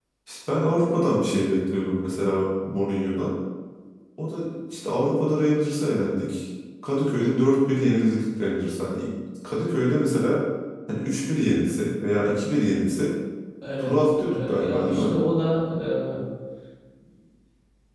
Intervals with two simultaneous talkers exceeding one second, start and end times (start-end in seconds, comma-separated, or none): 13.8-15.2